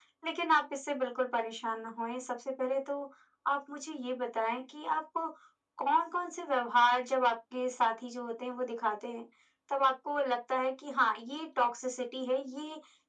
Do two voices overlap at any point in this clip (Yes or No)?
No